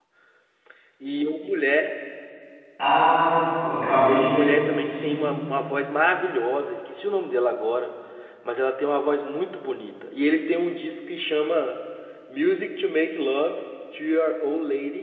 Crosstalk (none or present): present